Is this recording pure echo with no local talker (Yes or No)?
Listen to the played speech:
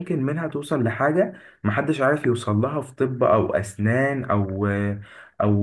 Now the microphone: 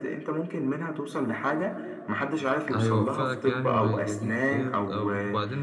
No